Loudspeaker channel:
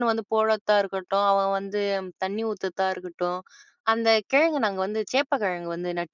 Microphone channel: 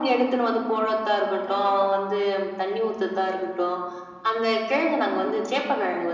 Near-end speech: present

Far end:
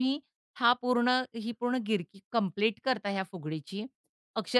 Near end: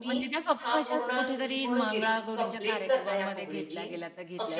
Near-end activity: present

